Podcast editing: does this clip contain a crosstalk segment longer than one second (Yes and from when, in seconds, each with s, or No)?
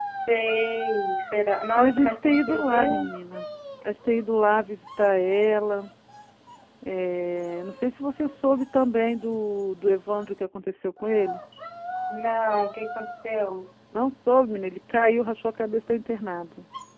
Yes, from 1.8 s